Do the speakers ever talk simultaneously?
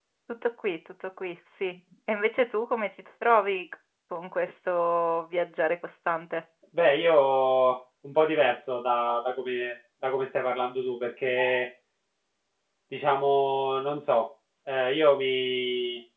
No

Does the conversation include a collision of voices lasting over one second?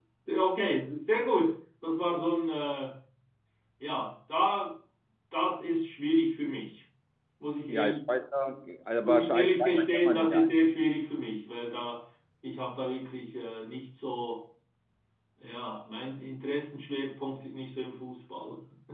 Yes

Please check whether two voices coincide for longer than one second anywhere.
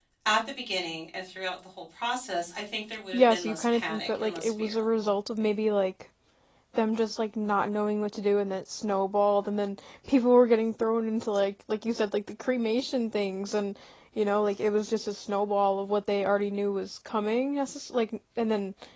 Yes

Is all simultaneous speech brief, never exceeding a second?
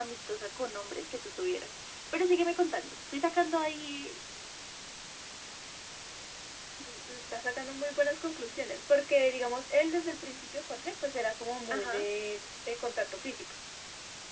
Yes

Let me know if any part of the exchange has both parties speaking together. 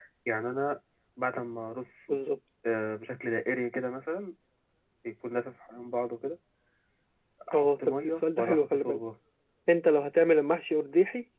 Yes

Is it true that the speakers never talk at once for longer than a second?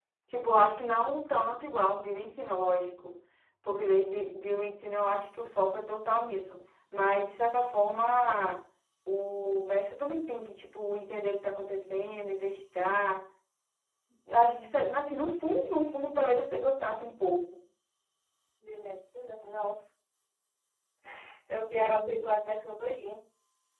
Yes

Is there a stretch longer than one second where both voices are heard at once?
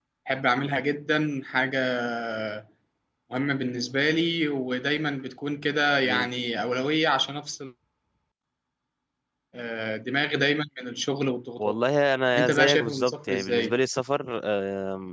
Yes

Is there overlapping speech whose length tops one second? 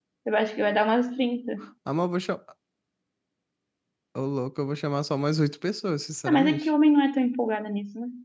No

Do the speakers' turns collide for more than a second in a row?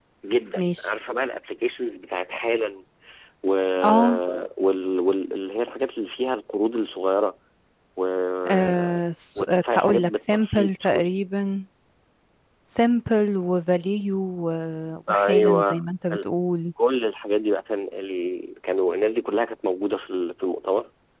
Yes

